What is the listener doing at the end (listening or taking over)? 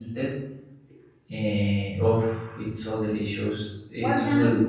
taking over